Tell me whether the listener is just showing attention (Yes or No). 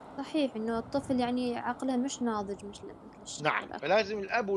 No